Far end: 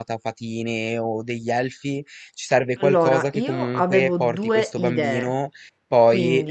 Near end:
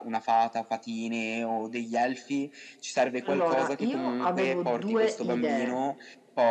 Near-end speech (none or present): none